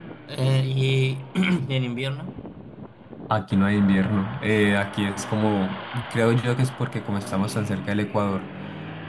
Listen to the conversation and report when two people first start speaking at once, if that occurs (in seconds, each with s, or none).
none